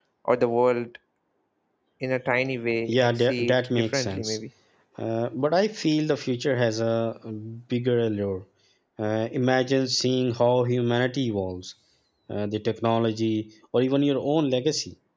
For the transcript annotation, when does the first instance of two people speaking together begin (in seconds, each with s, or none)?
2.9 s